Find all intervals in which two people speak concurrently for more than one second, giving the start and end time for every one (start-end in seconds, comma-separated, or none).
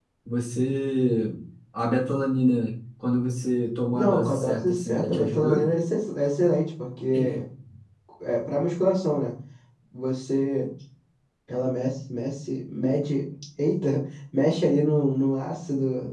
3.9-5.6